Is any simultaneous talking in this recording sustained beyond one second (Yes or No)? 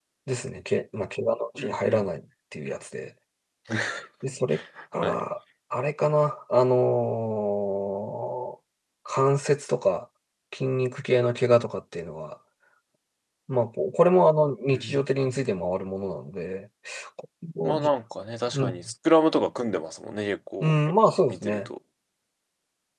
No